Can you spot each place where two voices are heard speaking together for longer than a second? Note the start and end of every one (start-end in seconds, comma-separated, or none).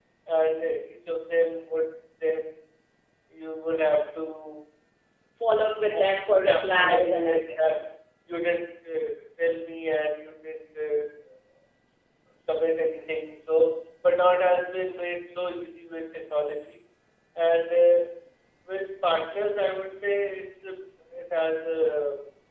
6.5-7.8